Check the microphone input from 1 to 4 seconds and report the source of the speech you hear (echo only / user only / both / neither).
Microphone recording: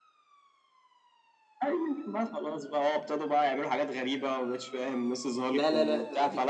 echo only